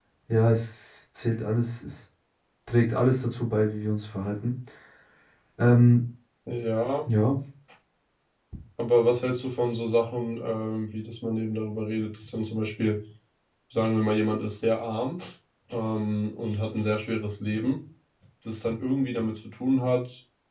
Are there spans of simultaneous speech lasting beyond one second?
No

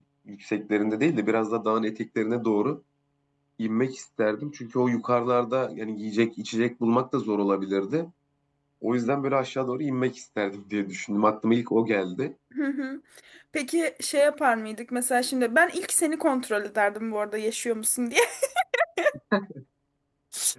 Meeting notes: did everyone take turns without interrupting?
Yes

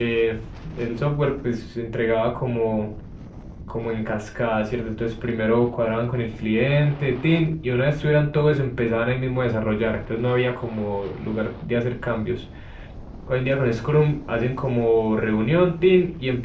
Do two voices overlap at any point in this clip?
No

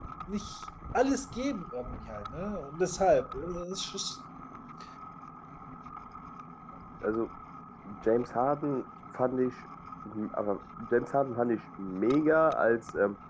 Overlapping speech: No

